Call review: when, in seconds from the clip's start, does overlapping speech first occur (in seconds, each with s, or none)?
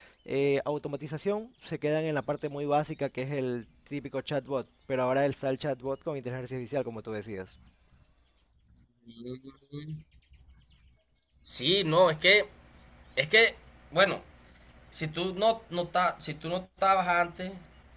none